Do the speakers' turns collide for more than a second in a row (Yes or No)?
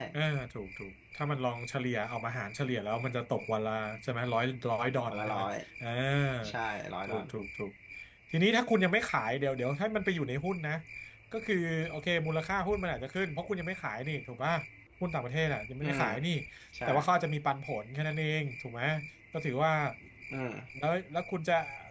No